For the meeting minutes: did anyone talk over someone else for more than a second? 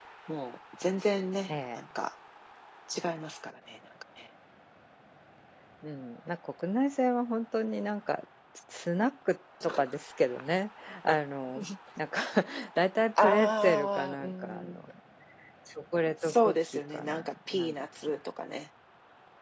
Yes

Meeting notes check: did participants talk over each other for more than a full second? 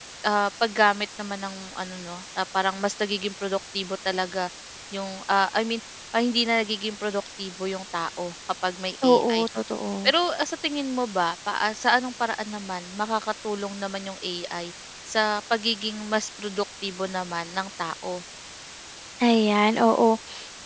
No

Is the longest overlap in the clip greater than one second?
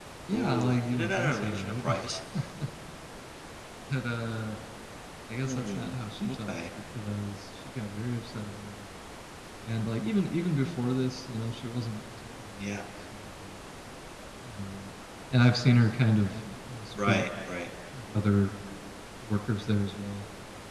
Yes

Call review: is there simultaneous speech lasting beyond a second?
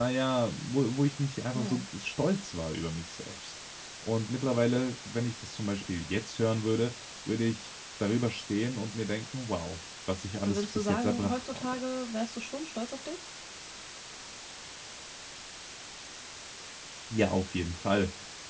Yes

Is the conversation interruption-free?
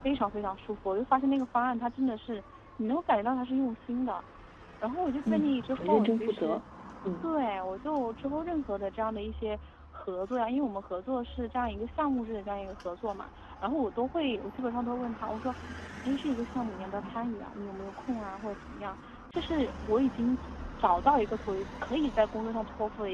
No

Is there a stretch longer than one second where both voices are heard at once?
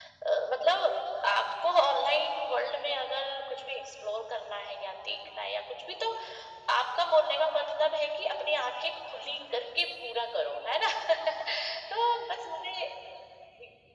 No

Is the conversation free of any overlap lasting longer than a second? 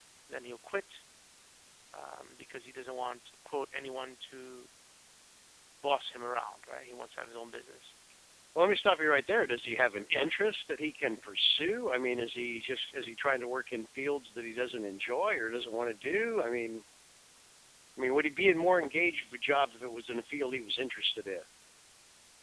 Yes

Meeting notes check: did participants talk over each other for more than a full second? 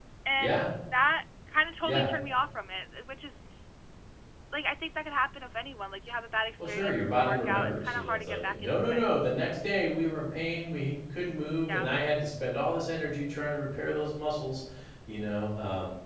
Yes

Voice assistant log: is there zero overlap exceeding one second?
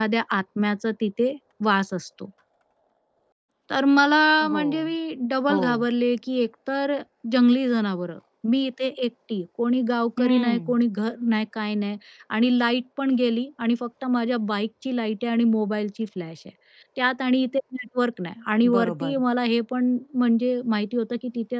Yes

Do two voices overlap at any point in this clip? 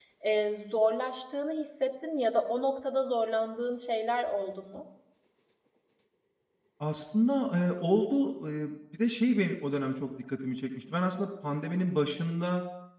No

